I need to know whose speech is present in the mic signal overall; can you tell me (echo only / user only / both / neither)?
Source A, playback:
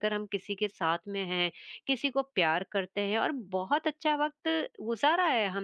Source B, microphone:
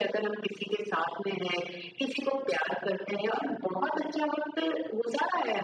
echo only